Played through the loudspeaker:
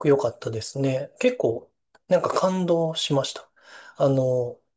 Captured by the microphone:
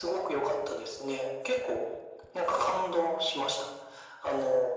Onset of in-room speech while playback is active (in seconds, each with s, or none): none